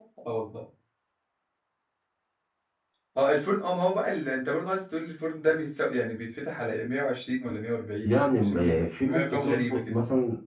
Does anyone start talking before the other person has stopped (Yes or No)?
Yes